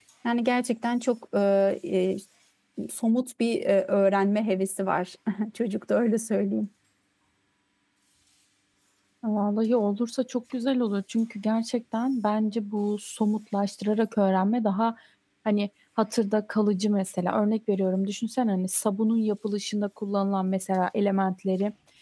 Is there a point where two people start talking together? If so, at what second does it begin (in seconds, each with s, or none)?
none